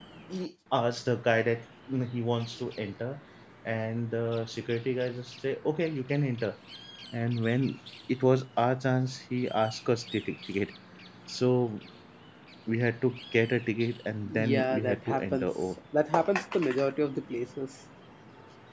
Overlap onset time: 14.3 s

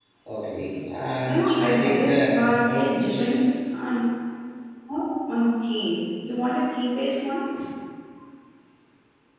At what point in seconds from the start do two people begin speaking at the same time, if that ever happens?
1.2 s

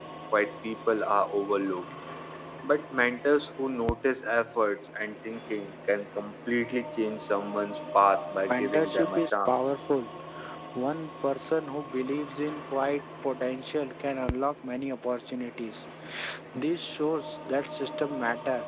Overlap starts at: 8.5 s

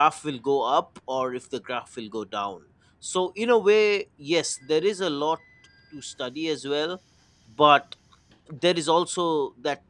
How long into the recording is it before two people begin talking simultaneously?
none

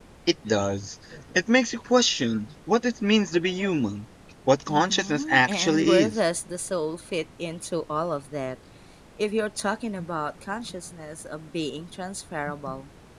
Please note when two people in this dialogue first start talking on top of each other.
4.7 s

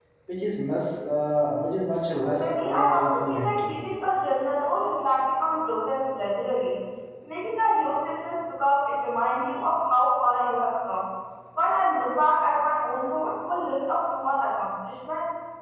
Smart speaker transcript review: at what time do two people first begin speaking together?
2.2 s

